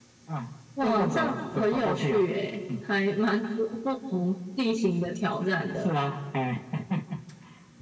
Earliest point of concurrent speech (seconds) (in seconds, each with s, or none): 0.8 s